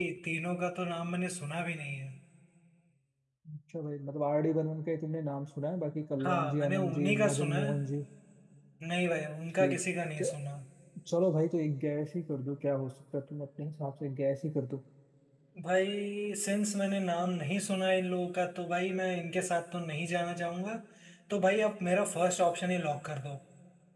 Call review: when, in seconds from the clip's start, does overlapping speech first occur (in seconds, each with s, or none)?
6.2 s